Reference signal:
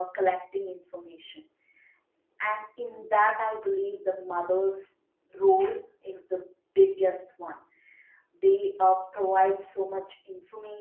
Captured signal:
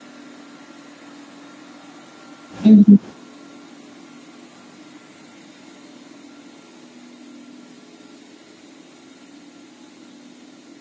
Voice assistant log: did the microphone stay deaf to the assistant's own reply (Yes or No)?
Yes